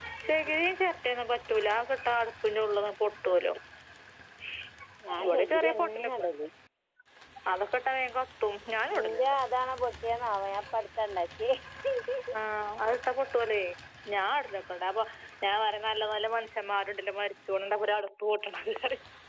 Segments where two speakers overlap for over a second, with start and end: 5.2-6.5

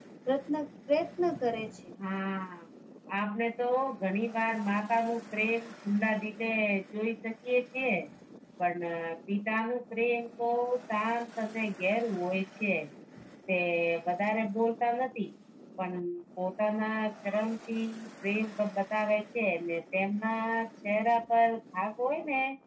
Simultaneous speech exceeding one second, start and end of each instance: none

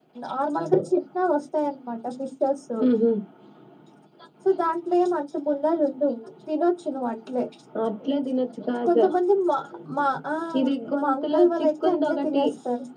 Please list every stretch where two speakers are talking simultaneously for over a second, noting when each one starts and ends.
11.0-12.4

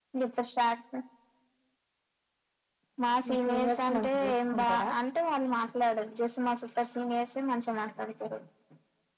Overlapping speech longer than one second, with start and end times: 3.3-4.9

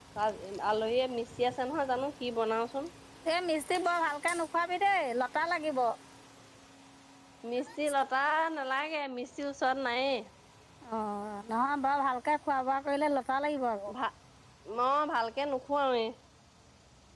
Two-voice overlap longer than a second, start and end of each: none

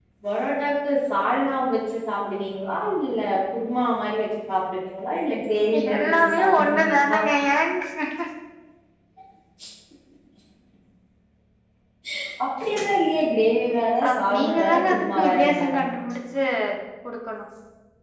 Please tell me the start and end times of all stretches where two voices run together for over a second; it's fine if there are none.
5.9-7.2, 14.1-15.6

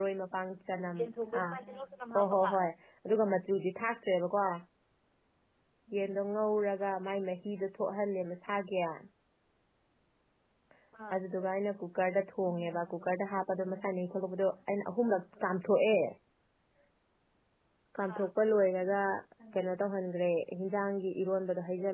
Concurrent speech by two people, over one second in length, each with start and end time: none

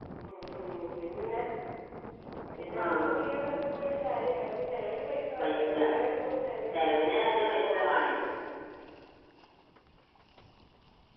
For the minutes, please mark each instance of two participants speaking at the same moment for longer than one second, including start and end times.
6.7-8.1

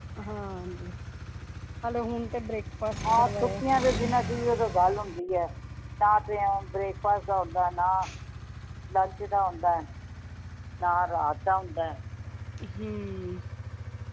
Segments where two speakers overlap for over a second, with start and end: none

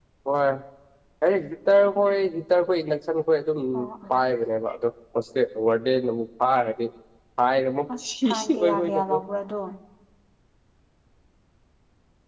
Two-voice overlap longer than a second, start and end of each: 8.0-9.2

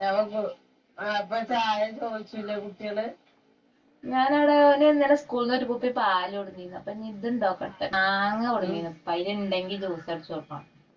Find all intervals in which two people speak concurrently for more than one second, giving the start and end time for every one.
none

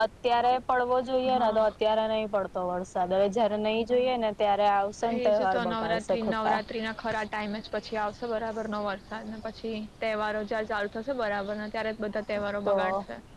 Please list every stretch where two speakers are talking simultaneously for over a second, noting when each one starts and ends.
5.1-6.6

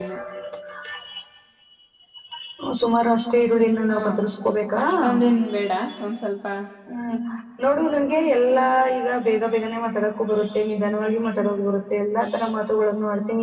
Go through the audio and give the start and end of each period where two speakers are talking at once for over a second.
none

